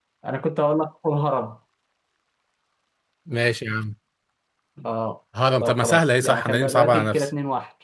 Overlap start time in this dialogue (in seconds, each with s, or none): 5.6 s